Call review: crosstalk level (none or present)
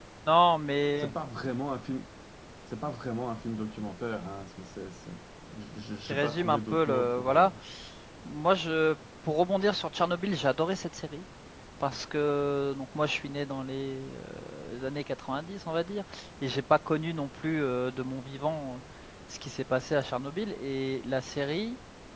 present